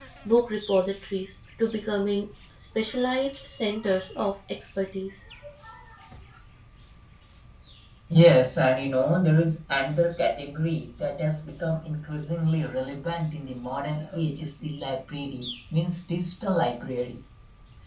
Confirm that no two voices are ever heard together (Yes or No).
Yes